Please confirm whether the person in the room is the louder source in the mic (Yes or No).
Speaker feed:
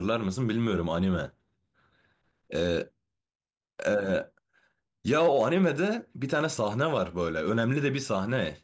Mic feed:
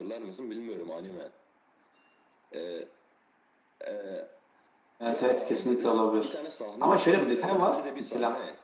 Yes